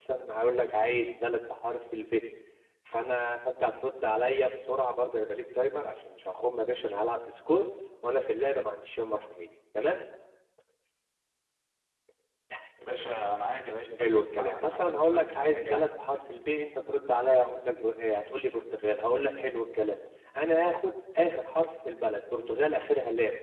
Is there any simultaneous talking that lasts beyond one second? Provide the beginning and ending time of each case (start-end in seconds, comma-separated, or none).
14.0-15.9